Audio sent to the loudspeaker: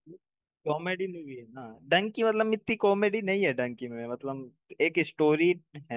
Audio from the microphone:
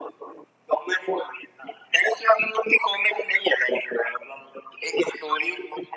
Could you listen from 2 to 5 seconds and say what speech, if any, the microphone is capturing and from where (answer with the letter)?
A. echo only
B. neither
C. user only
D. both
A